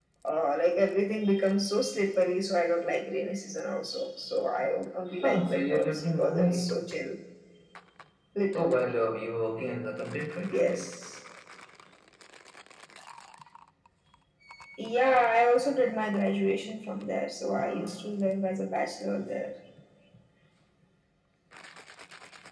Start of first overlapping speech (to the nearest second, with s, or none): 5 s